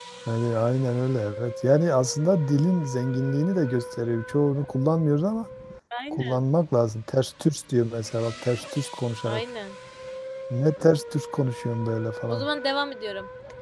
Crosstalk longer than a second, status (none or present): none